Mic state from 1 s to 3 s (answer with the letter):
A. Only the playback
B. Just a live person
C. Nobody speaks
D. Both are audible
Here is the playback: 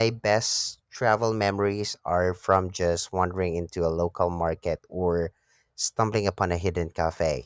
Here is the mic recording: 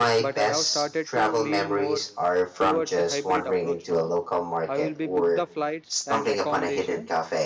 D